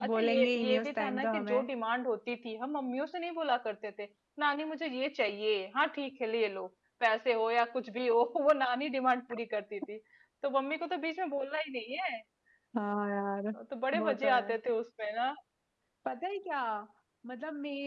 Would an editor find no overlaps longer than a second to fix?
No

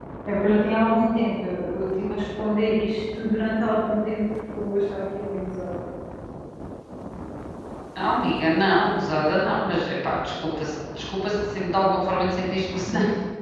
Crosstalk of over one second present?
No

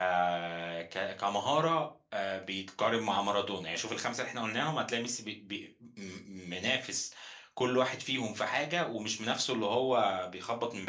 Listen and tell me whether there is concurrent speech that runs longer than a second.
No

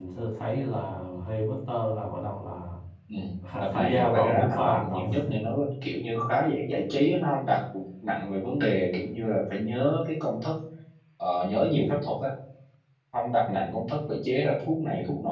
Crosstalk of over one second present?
Yes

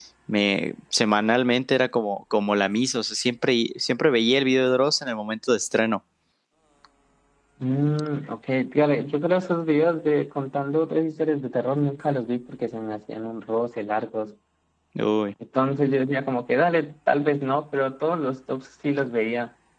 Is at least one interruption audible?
No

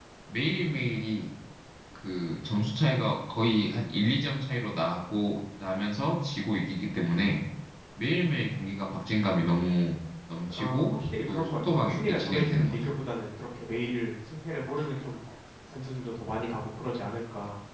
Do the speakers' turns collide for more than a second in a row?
Yes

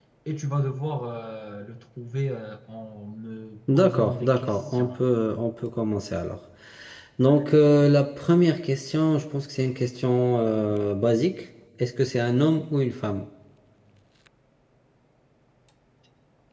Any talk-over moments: Yes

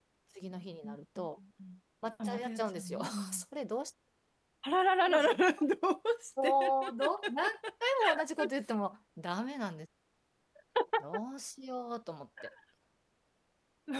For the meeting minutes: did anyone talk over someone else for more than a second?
Yes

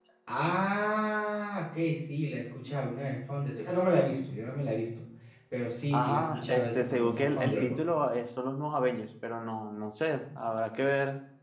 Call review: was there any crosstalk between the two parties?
Yes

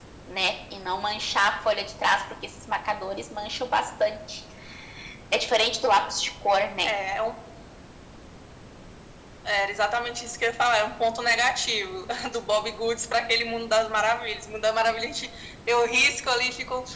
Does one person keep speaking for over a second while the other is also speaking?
No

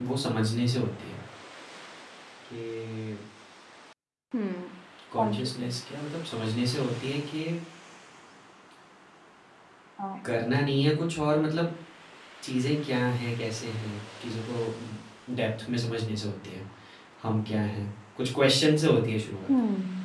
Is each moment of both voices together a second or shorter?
Yes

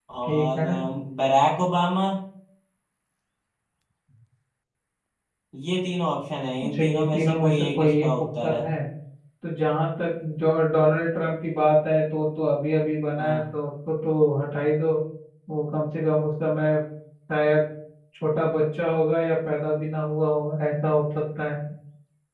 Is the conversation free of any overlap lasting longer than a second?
No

